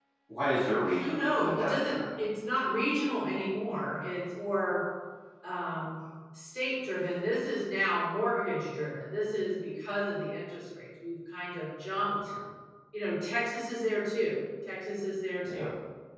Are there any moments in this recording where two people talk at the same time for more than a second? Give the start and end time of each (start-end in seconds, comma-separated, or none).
0.6-1.9